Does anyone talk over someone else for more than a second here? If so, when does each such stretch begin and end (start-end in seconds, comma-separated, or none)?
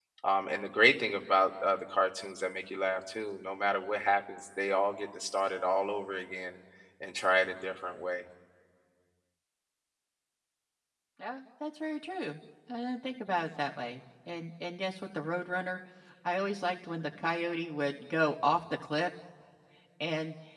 none